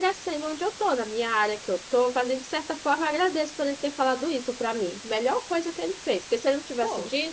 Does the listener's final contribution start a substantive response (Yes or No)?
No